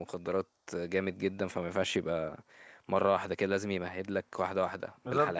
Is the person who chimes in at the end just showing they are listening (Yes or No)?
No